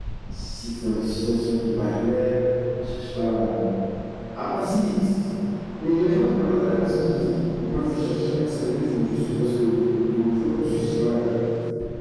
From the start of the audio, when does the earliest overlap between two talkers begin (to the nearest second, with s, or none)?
none